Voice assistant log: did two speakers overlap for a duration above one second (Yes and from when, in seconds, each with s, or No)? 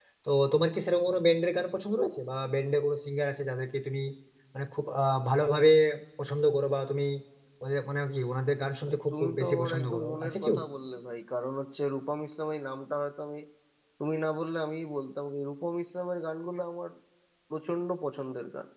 Yes, from 8.9 s